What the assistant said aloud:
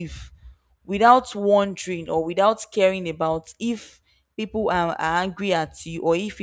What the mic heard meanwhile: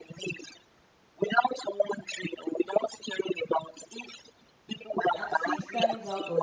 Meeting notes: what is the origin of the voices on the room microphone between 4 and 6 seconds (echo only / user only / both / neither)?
both